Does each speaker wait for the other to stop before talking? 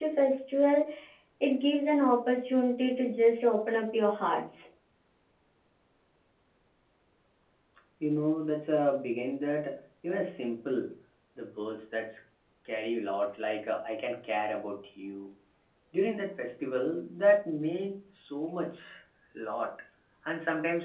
Yes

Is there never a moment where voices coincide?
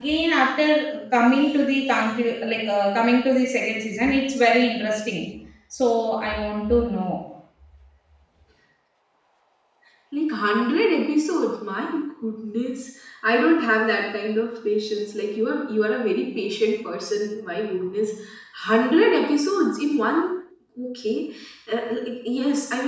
Yes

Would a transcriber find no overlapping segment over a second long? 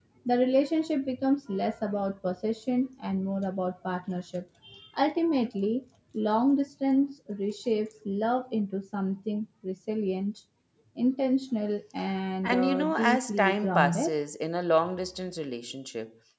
No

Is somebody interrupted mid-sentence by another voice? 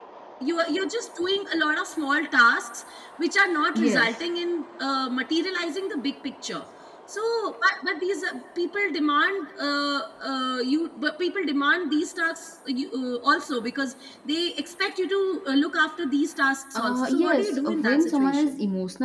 Yes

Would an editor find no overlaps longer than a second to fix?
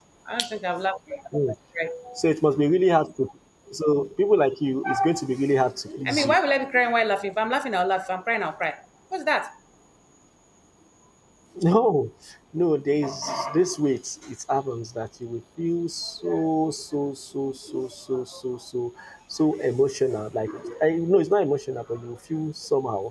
Yes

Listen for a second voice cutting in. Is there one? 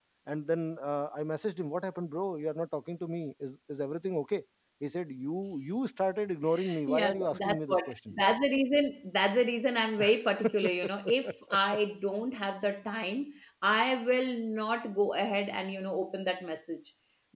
Yes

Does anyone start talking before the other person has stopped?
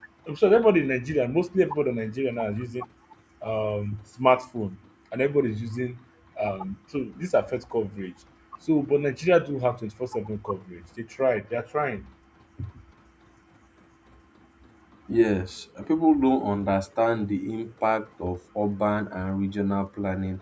No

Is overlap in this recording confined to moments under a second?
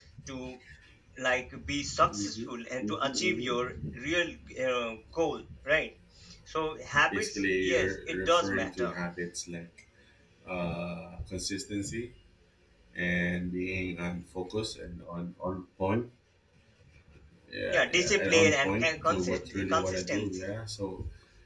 No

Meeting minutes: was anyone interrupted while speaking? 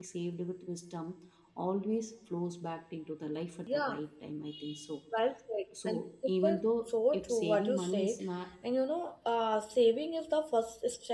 Yes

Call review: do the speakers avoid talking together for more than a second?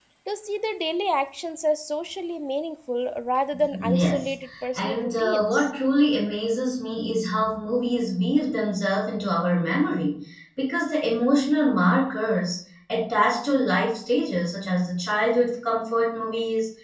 No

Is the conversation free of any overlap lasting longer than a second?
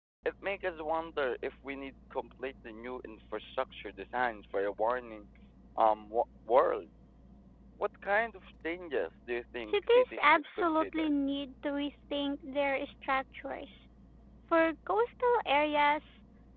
No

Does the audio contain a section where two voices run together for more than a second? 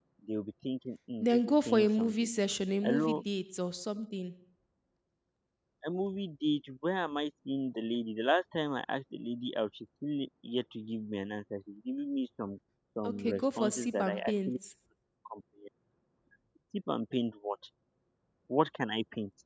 Yes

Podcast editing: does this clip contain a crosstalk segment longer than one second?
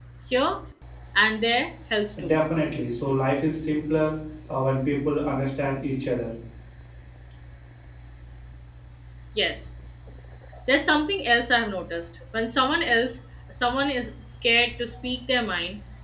No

